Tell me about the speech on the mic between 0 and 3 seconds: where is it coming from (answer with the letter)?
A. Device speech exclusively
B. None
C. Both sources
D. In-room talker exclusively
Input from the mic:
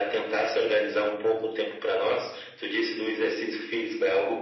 A